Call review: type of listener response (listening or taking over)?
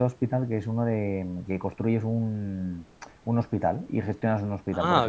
taking over